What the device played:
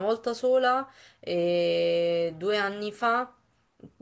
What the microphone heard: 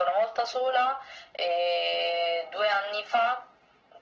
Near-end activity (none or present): none